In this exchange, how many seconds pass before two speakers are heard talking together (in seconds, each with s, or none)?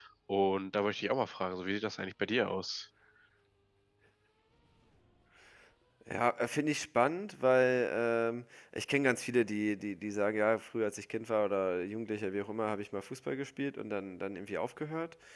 none